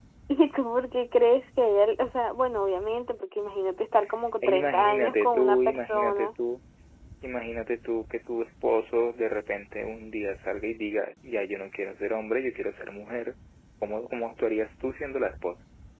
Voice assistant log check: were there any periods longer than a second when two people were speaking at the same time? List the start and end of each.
4.4-6.3

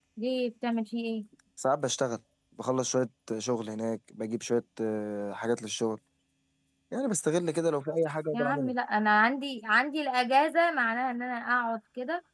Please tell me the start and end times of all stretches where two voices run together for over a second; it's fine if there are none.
none

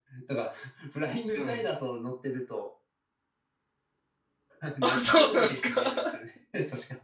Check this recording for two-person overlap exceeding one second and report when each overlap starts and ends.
4.8-6.2

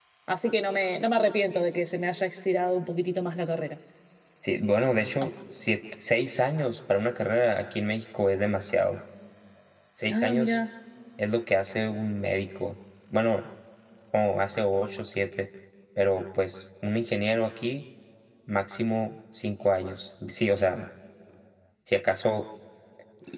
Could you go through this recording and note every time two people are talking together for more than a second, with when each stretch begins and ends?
none

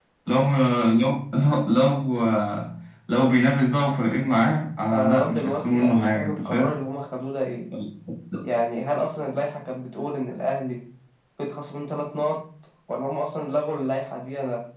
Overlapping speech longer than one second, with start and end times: 4.9-6.7

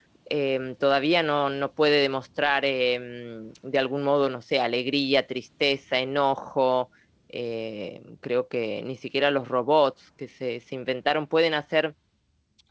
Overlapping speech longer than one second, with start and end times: none

